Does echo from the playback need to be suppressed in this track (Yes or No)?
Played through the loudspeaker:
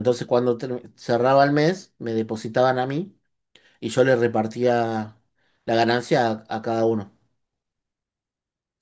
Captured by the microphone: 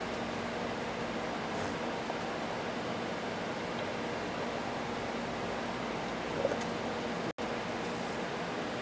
No